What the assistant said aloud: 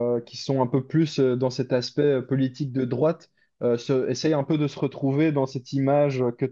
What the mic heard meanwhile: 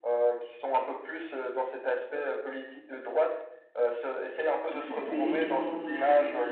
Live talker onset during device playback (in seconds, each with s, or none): 4.7 s